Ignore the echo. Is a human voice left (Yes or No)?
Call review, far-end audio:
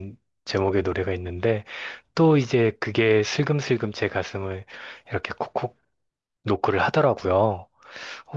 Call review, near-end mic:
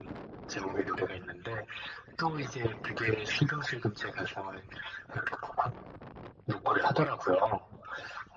No